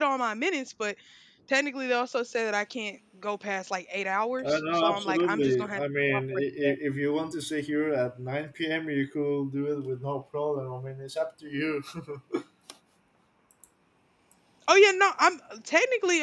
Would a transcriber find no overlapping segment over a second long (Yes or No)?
No